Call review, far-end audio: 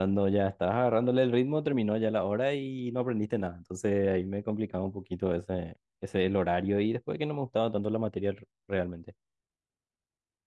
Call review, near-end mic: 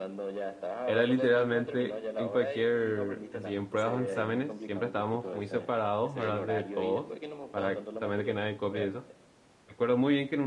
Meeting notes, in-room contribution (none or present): present